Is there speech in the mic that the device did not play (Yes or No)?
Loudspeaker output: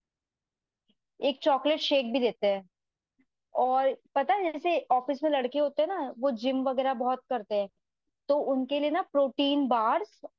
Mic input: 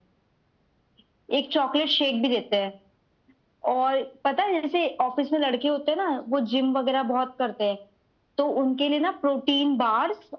No